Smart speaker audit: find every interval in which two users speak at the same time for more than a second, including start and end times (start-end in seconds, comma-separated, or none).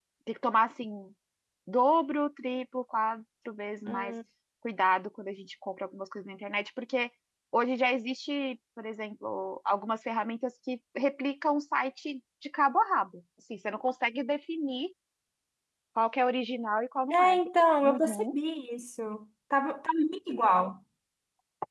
none